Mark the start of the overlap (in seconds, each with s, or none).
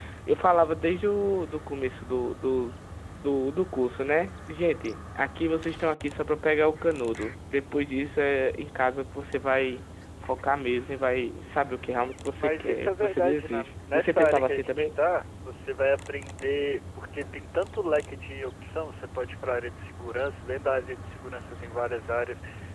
12.4 s